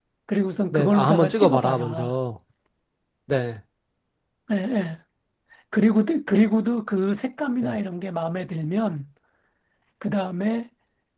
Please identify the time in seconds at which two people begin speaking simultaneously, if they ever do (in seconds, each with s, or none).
0.7 s